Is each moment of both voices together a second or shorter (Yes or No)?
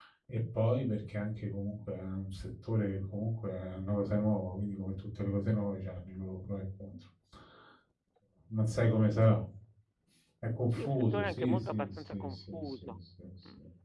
No